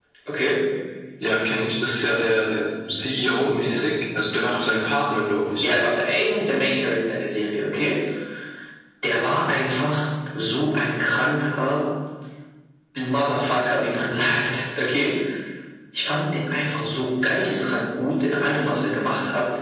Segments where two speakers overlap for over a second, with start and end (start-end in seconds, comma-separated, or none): none